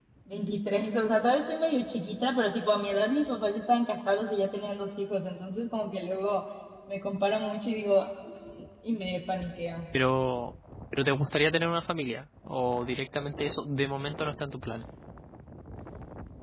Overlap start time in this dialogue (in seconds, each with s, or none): none